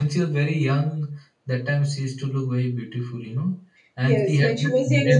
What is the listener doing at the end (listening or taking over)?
taking over